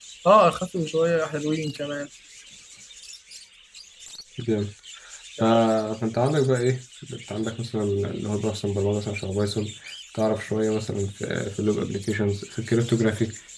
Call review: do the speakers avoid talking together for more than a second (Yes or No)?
Yes